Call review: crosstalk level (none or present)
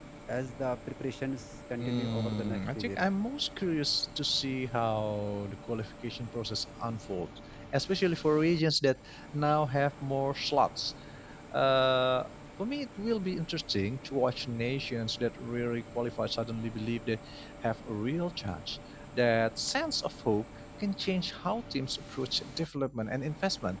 present